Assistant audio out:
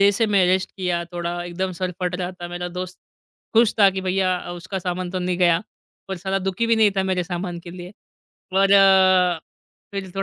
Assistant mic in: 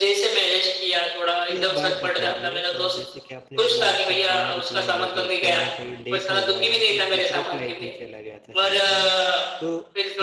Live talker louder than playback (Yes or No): No